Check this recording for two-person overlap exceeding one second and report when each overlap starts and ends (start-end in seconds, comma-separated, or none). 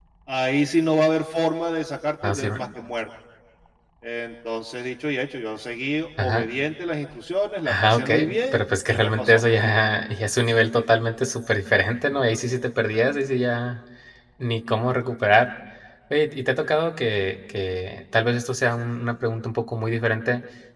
7.6-9.4